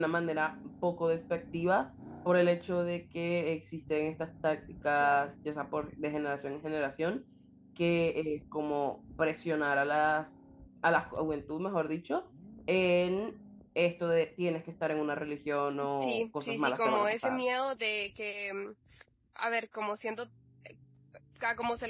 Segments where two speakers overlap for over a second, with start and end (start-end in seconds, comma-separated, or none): 16.0-17.4